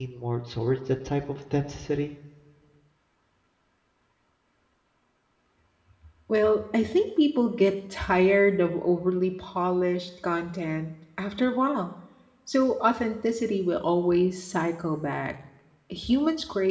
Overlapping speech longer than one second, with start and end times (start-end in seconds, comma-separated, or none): none